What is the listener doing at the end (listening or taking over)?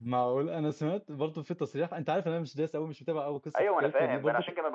taking over